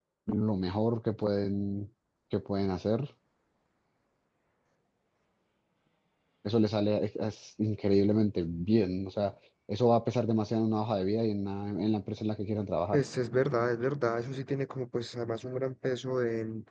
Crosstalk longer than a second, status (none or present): none